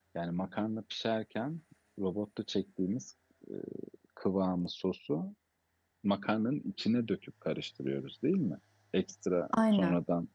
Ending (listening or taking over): listening